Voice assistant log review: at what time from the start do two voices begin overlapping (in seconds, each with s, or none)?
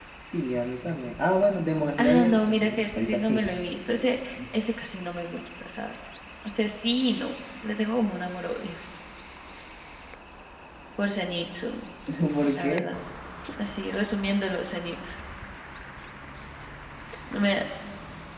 2.0 s